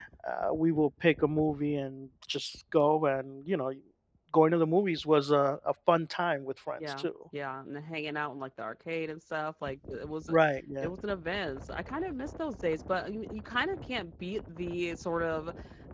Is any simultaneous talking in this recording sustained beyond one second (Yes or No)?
No